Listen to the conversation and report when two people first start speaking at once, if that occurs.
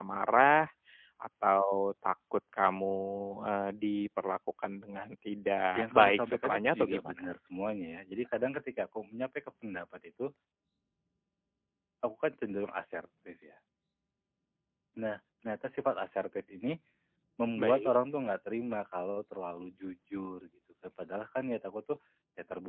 5.8 s

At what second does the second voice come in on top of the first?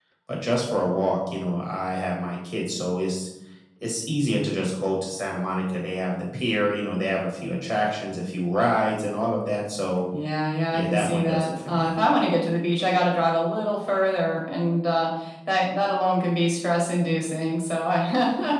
10.7 s

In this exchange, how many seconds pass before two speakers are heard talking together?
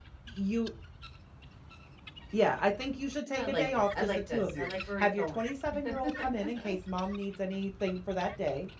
3.3 s

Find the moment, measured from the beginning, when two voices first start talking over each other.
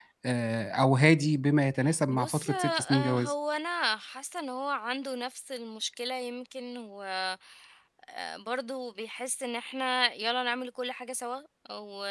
2.1 s

